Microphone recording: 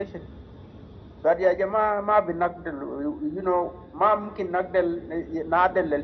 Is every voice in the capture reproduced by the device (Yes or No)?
Yes